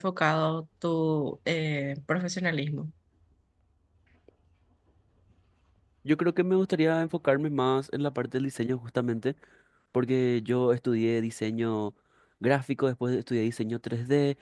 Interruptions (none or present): none